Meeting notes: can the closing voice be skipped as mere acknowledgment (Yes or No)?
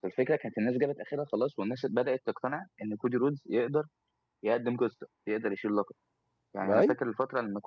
Yes